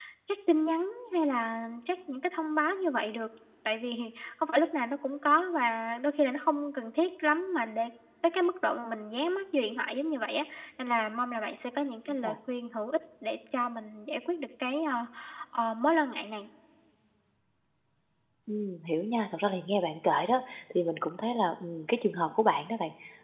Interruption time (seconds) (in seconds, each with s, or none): none